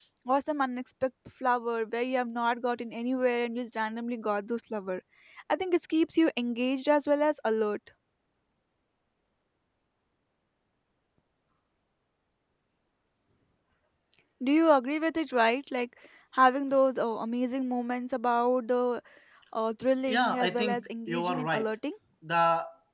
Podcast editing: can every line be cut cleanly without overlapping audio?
No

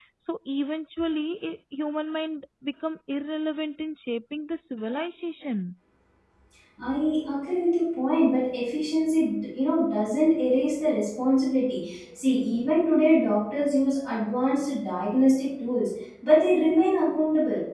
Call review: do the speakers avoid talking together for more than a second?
Yes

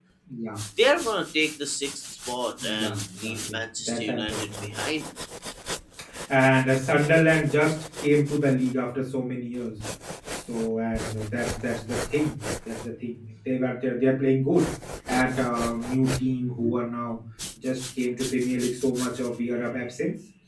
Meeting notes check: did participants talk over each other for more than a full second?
Yes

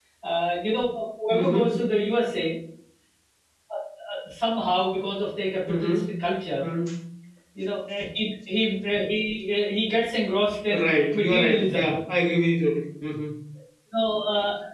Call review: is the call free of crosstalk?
No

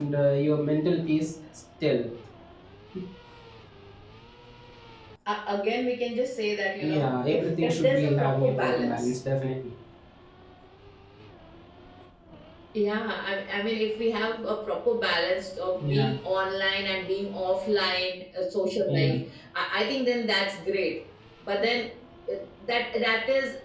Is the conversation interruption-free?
No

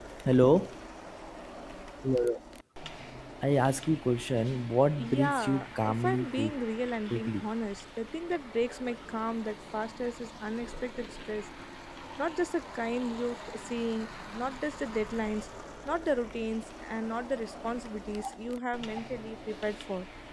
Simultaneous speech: Yes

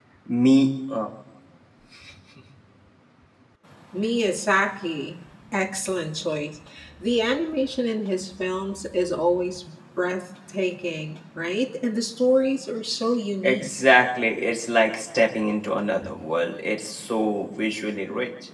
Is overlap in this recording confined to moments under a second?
Yes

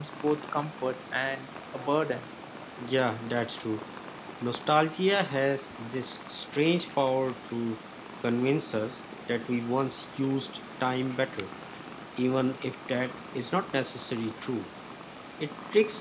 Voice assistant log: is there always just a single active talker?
Yes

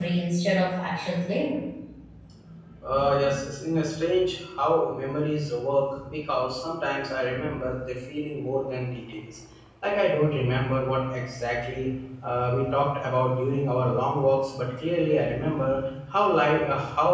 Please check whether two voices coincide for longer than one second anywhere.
No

